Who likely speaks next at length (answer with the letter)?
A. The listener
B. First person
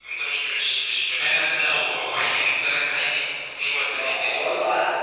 A